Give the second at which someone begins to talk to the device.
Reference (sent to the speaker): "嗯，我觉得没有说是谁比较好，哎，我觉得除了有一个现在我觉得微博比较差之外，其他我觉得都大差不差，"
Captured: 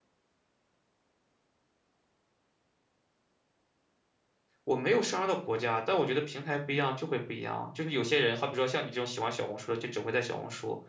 4.6 s

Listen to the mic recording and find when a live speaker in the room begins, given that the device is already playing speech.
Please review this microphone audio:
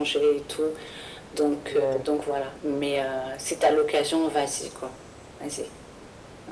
1.7 s

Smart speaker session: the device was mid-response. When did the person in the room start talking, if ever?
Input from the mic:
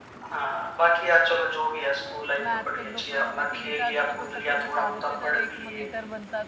2.4 s

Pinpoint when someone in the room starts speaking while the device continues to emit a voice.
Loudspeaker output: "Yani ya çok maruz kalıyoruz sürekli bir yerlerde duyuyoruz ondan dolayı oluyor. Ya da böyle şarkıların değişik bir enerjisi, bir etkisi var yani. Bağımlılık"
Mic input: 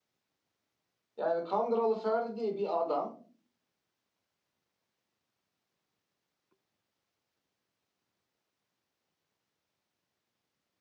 1.2 s

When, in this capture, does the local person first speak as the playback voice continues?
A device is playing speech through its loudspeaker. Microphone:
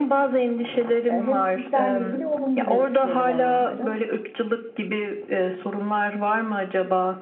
1.1 s

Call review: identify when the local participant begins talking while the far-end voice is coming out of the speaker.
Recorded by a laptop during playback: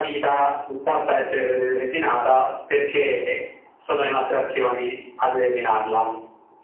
none

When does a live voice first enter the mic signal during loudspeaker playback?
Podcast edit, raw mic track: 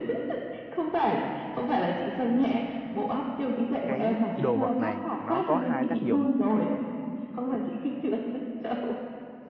3.8 s

